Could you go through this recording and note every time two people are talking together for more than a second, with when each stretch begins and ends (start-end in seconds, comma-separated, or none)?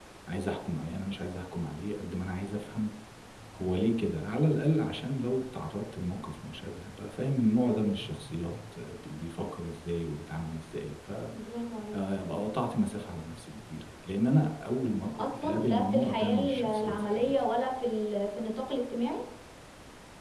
15.2-17.4